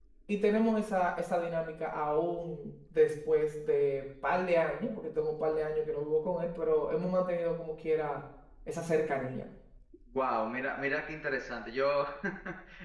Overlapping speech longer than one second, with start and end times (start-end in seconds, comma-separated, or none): none